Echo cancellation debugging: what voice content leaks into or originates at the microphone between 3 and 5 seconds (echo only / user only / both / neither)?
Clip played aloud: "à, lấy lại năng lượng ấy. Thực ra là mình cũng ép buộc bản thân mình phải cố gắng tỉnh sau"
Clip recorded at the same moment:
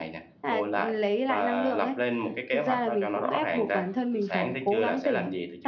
both